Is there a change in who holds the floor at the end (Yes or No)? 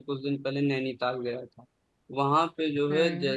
No